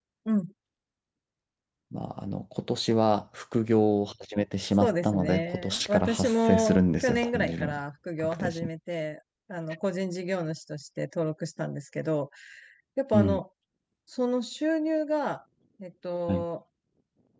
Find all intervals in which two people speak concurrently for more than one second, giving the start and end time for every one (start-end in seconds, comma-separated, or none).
4.8-7.8